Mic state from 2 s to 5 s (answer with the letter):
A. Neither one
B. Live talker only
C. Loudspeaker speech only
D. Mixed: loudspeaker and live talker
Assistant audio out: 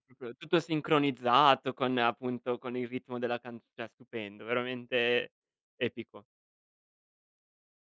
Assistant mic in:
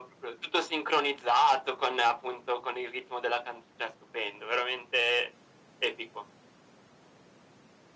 C